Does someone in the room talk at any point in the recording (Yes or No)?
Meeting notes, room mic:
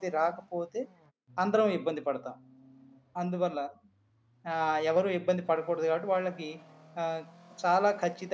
Yes